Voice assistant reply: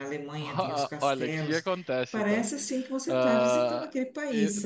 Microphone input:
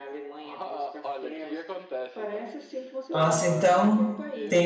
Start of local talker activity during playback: 3.1 s

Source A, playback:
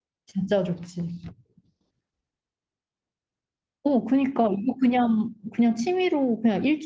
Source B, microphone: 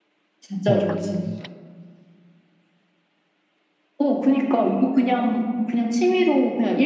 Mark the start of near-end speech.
0.7 s

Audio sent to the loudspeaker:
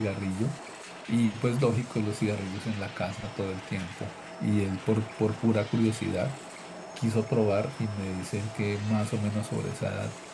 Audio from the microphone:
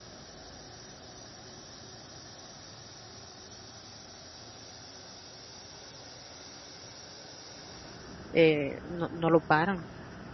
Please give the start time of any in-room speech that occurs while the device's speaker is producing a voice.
8.3 s

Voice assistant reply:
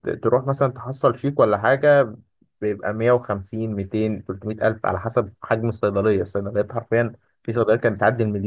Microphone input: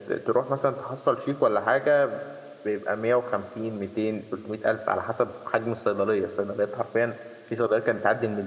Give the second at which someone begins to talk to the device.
none

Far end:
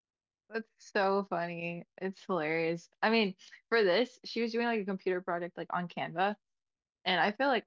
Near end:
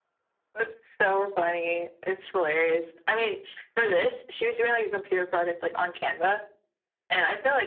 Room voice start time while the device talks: none

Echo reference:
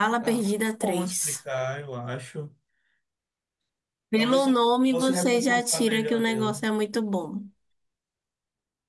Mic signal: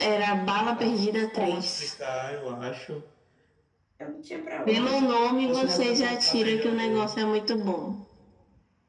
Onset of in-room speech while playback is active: 4.0 s

